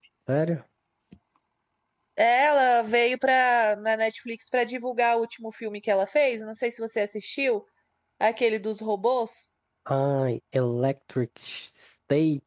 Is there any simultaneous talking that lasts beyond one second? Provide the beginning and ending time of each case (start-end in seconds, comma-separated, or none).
none